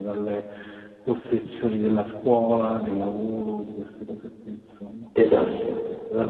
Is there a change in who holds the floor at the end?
No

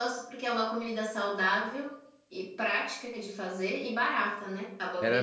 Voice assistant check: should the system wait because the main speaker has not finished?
No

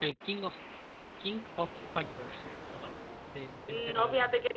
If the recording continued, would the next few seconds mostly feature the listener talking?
Yes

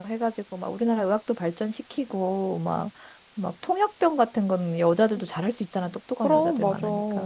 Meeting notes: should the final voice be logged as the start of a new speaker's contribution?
No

